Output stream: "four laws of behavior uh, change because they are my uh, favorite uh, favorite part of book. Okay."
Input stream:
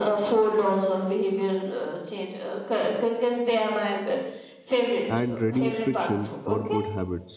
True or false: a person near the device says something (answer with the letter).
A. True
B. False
A